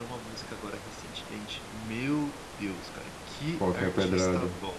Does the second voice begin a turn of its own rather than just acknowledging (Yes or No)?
No